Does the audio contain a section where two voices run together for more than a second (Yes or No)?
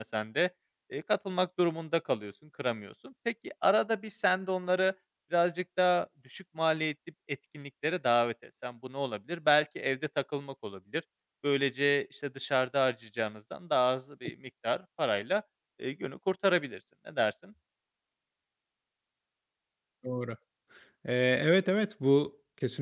No